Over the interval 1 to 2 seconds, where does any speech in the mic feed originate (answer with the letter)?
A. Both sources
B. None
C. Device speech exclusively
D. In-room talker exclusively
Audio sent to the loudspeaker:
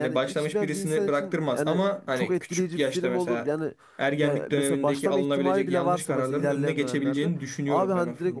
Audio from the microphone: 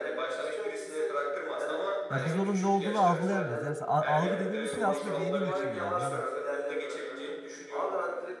C